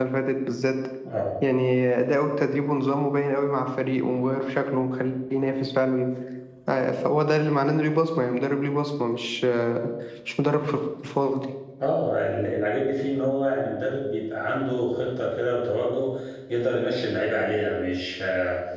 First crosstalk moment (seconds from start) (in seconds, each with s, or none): none